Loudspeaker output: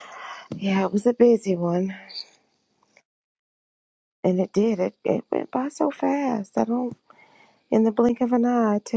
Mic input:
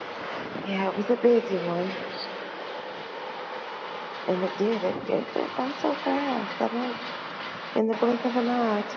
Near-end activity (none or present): none